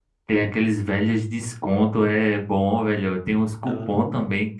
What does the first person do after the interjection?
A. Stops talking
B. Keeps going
B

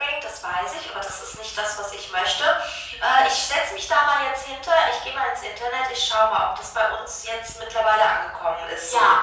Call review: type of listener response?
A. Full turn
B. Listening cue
A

